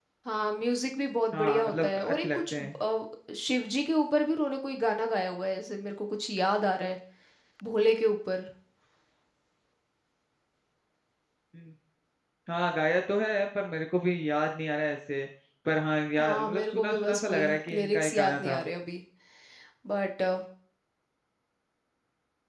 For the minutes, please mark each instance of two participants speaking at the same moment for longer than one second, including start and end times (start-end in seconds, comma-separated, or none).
1.3-2.7, 16.2-18.6